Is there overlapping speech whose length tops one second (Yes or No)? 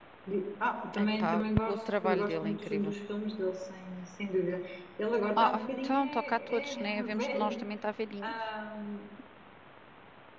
Yes